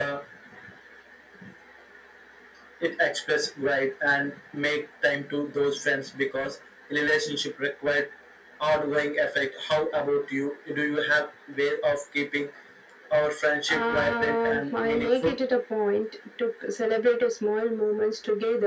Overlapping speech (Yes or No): Yes